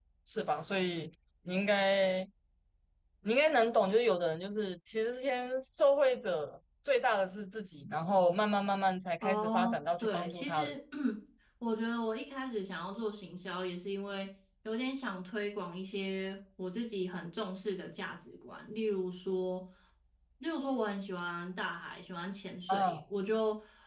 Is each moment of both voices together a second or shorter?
No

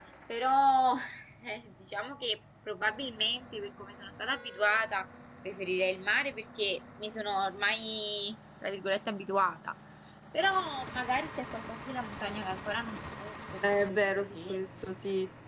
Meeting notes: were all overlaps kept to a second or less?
No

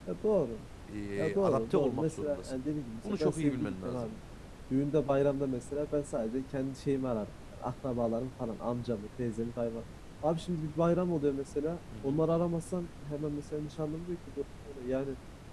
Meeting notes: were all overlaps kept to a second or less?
No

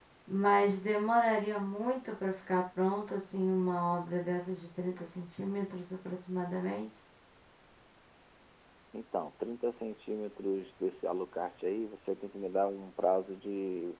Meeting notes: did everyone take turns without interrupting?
Yes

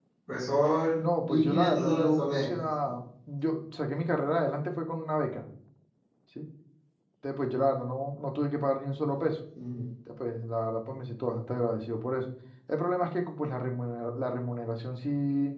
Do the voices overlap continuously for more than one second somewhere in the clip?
Yes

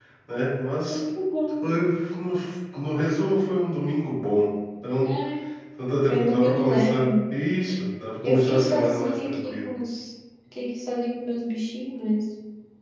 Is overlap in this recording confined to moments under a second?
No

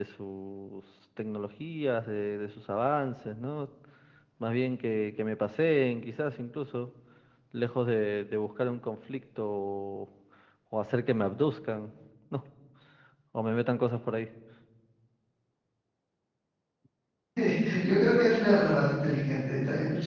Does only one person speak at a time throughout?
Yes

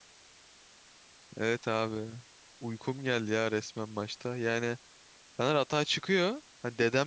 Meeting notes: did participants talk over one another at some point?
No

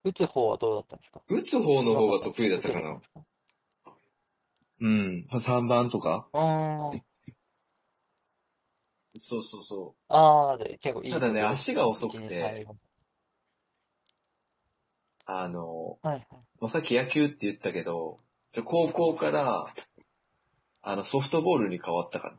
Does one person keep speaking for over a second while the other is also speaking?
Yes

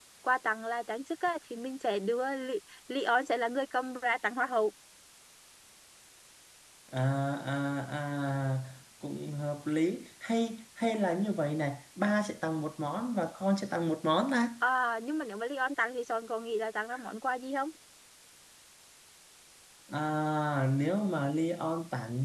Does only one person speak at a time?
Yes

